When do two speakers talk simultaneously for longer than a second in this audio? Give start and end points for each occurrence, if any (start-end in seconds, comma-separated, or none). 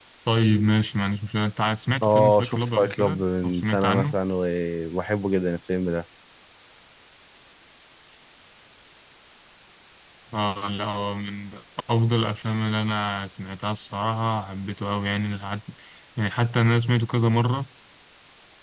2.0-4.2